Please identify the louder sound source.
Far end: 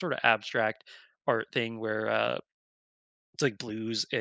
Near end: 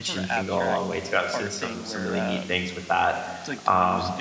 user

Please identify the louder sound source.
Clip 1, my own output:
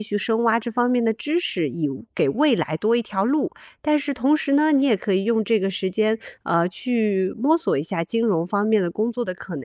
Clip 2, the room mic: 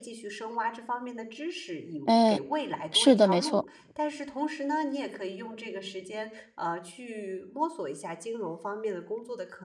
user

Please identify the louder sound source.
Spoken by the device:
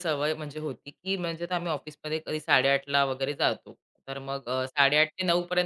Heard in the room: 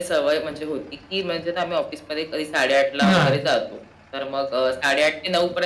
user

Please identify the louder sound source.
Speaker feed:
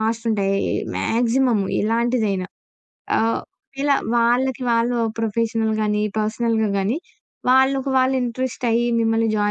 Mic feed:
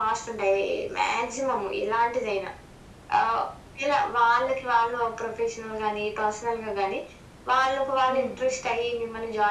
echo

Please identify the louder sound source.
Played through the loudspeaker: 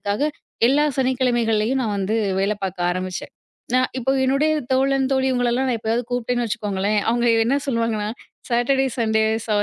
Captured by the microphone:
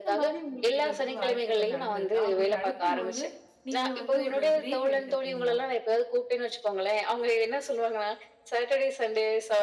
echo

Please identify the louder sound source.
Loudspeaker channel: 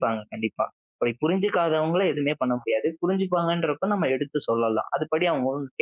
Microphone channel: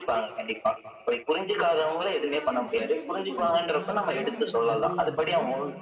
echo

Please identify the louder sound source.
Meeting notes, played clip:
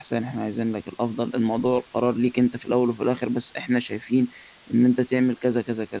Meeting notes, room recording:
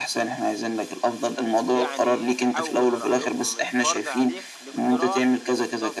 echo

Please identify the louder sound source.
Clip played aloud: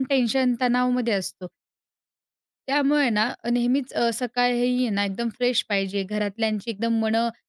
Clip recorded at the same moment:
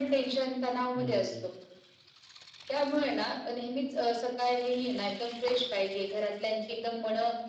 echo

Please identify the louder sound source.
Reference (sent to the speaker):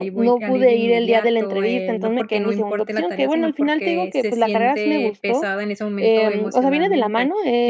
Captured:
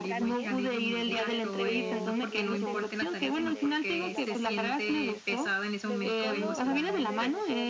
echo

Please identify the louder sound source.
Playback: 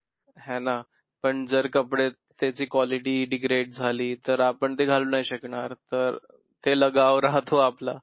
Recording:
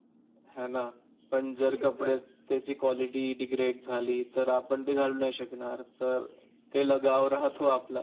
echo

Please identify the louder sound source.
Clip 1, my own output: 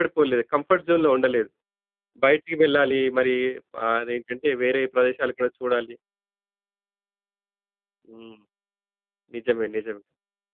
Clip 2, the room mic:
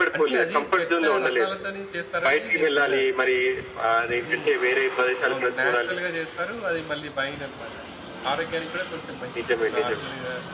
echo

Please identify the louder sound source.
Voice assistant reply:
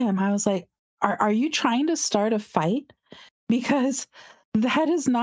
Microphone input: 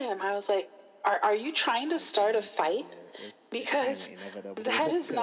echo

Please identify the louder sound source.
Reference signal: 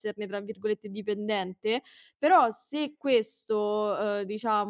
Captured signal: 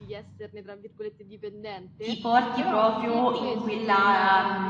user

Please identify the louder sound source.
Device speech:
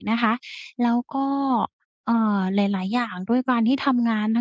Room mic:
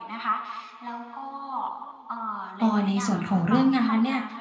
user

